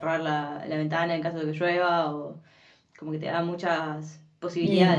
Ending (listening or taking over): taking over